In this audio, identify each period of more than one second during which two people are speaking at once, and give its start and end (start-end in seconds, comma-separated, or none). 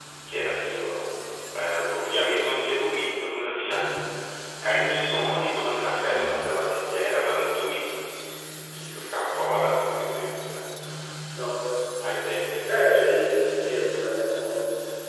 none